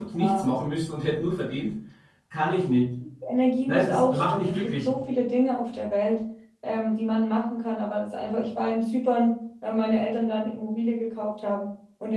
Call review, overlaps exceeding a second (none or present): present